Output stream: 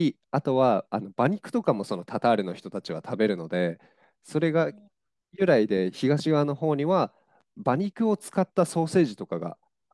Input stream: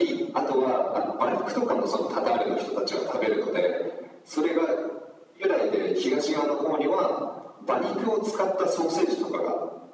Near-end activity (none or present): none